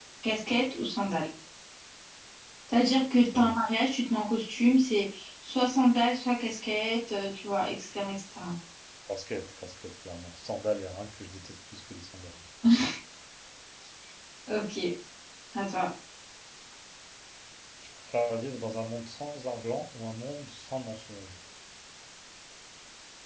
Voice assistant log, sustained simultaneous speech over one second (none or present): none